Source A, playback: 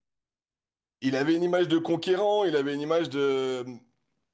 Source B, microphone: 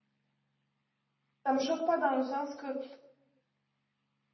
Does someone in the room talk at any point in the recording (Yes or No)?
Yes